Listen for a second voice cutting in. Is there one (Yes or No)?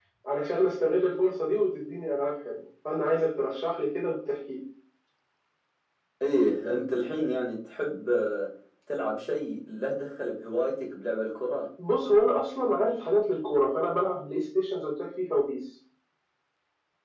No